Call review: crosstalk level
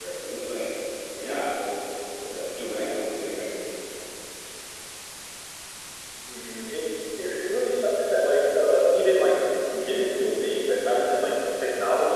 none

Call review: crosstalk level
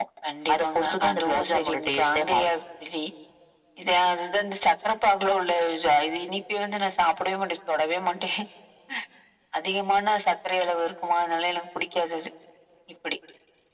present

